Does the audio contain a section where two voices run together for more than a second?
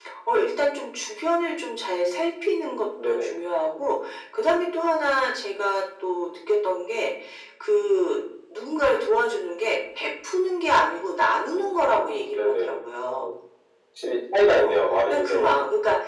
Yes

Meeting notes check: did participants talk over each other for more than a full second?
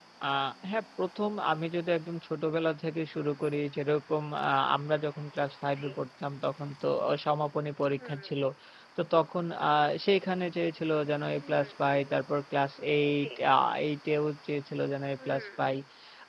No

